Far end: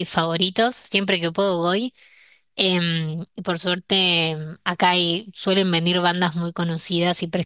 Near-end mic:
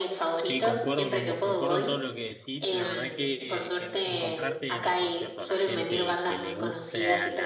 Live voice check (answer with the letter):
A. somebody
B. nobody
A